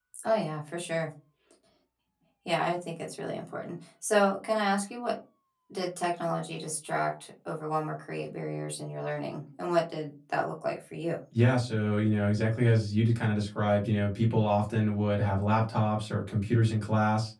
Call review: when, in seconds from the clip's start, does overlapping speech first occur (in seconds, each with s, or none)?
none